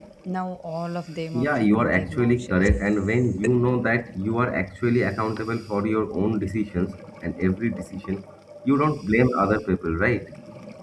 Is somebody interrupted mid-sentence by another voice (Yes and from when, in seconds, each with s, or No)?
Yes, from 1.3 s